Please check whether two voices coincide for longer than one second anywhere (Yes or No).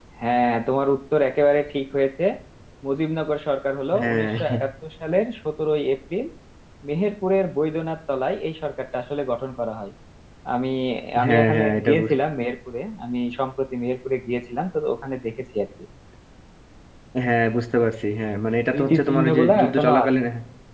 Yes